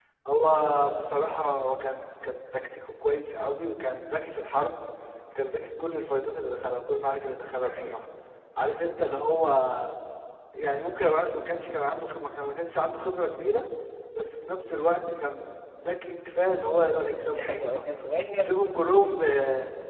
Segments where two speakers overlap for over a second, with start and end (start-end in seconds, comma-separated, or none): none